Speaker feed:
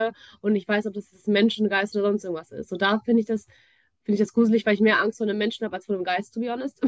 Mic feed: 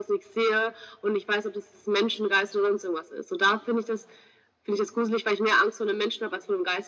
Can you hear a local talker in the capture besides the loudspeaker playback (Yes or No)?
No